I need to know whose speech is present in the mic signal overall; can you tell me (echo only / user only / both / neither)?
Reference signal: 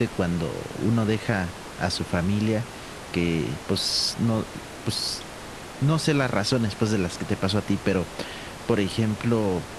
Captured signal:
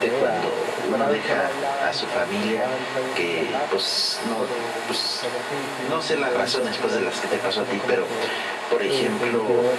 both